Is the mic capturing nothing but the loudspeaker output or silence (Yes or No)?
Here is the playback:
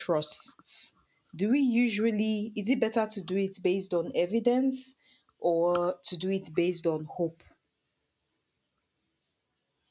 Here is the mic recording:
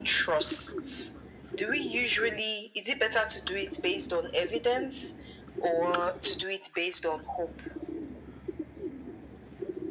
Yes